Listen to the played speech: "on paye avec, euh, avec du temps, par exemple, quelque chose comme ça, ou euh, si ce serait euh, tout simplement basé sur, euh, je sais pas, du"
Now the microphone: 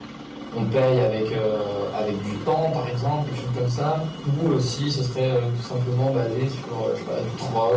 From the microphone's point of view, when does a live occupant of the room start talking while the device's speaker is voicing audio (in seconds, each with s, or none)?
none